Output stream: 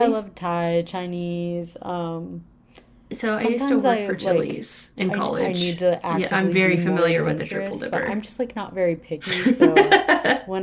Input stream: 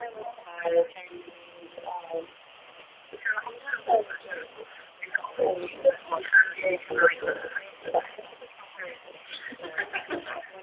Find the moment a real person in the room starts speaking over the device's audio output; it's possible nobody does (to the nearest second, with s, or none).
none